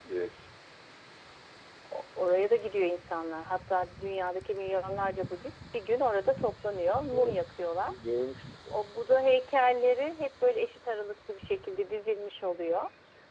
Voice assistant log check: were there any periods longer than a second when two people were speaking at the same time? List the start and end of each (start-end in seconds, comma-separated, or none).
none